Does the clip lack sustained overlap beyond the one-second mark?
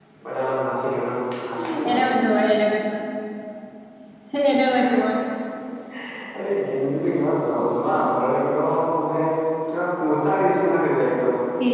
Yes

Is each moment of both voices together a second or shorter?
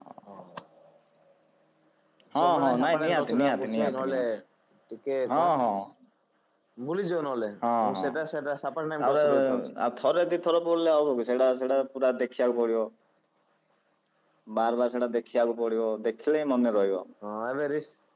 No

